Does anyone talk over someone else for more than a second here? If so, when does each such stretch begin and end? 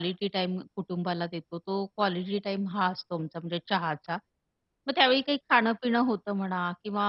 none

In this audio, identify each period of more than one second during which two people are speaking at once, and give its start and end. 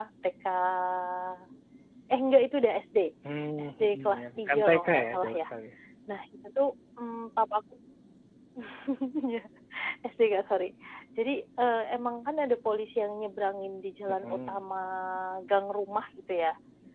3.6-5.4

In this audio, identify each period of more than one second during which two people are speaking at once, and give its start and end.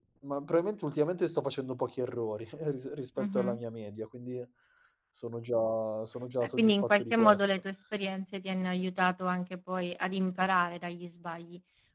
6.4-7.6

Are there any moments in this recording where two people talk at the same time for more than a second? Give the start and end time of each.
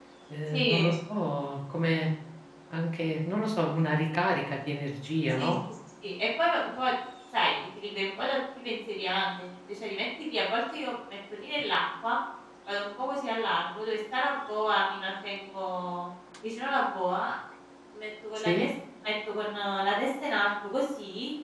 none

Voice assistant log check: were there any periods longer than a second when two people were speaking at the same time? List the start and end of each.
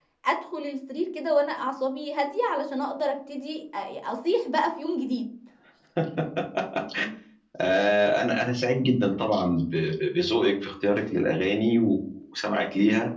none

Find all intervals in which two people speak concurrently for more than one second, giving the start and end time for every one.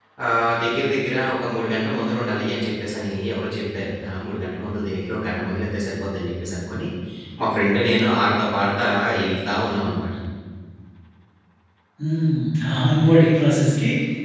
none

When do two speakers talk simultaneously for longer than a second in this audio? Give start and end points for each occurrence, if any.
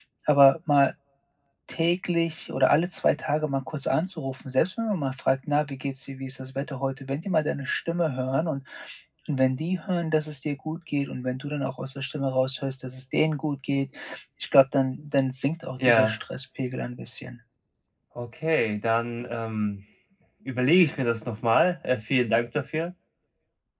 none

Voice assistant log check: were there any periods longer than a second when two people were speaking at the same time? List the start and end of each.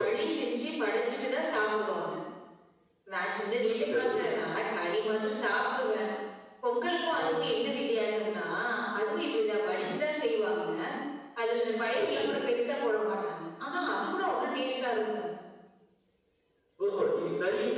none

